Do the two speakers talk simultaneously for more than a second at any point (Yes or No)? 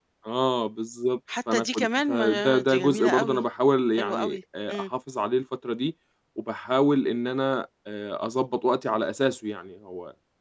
Yes